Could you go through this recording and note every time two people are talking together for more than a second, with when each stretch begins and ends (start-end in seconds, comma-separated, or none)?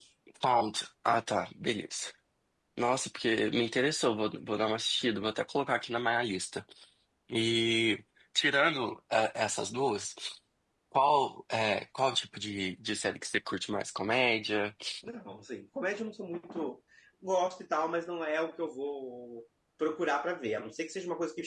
none